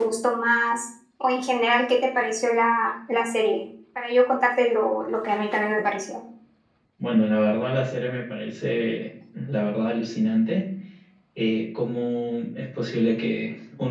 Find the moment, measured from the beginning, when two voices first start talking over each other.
none

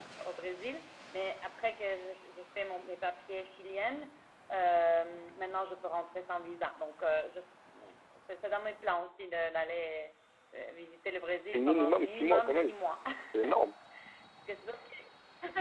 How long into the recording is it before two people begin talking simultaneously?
11.5 s

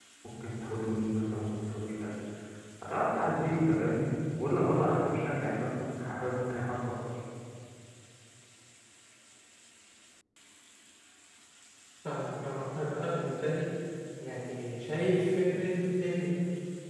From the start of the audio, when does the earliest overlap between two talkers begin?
none

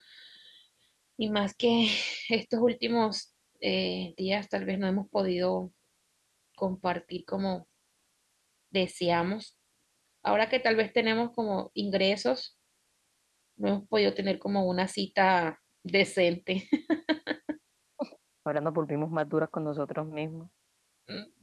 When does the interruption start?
none

